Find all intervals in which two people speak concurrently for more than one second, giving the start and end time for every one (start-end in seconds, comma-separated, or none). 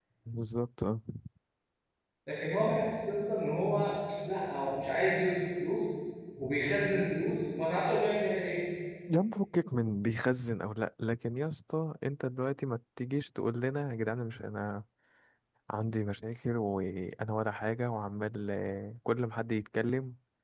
none